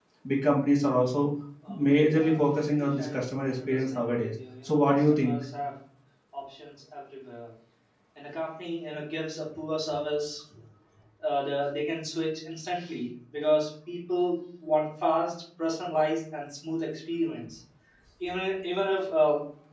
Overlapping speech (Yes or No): Yes